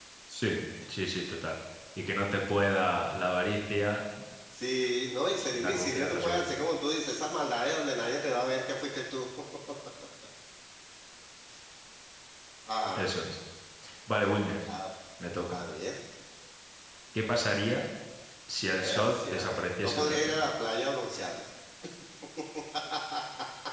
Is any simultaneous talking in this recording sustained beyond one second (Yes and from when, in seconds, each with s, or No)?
Yes, from 5.4 s